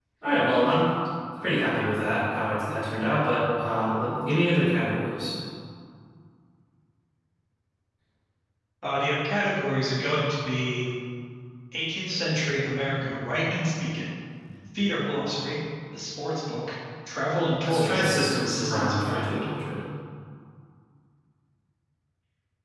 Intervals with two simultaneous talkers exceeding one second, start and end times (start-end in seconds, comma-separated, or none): 17.6-19.5